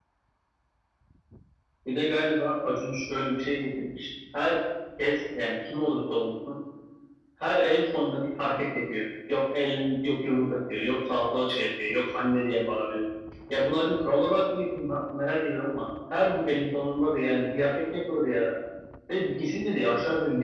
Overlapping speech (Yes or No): No